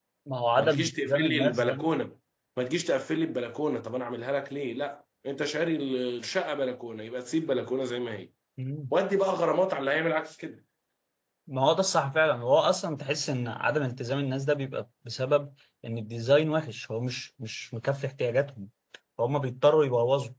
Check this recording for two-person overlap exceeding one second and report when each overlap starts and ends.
0.6-1.8

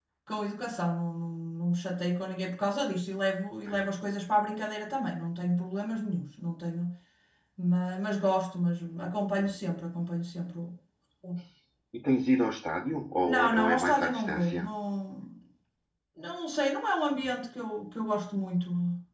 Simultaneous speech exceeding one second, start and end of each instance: 13.2-14.6

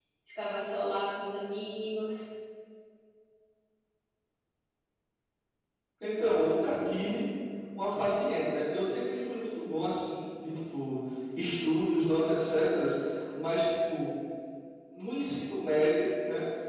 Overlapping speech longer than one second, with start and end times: none

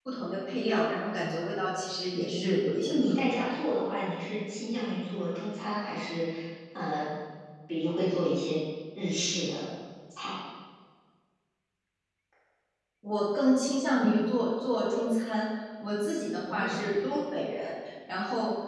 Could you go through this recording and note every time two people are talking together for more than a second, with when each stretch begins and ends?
2.1-3.5

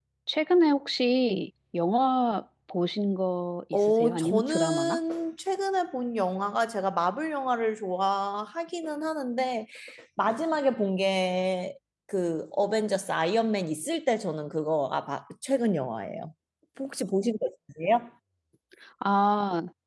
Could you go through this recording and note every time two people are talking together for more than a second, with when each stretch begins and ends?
3.7-5.0

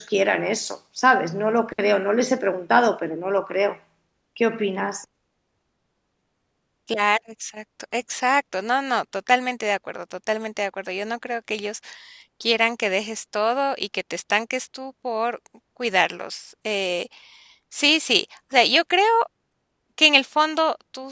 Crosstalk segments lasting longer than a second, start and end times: none

